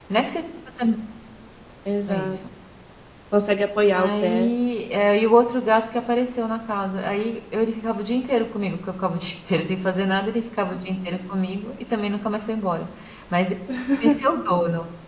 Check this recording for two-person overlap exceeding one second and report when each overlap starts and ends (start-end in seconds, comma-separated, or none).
none